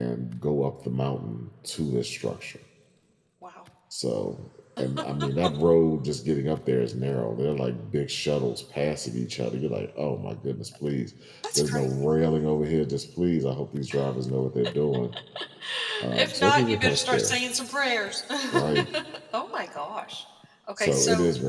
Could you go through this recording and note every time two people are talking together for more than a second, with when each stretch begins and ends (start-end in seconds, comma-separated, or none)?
16.1-17.4